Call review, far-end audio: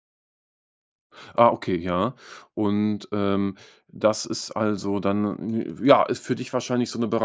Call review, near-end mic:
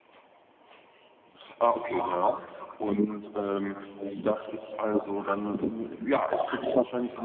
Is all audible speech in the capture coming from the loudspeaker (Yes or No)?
Yes